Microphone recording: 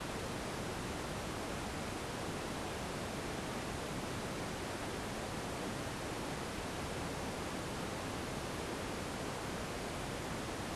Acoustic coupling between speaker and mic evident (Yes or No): No